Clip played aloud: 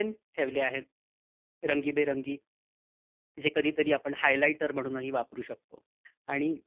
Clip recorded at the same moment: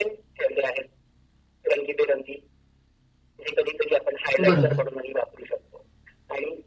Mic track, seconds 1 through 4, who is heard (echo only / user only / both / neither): echo only